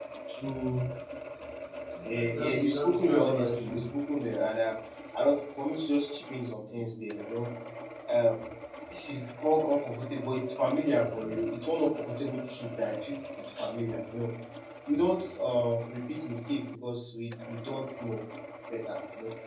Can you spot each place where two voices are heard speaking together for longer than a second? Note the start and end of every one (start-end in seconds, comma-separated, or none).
2.0-3.8